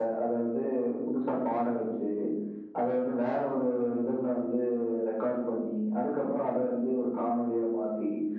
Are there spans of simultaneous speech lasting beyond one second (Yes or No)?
No